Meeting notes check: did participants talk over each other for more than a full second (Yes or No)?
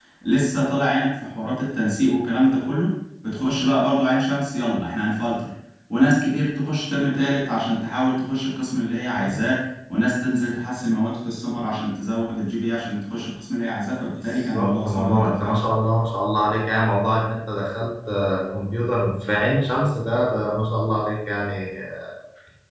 Yes